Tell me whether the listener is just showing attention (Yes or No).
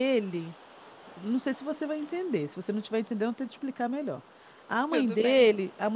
Yes